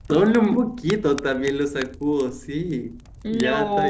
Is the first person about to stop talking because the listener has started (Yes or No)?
Yes